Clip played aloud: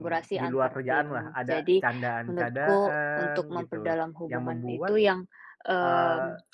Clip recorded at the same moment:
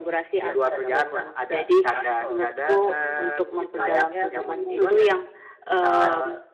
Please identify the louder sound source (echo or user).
echo